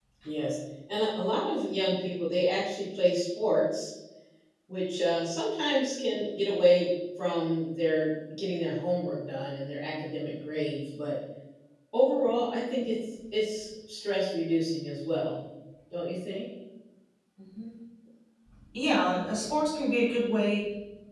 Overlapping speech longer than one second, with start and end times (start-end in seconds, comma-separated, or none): none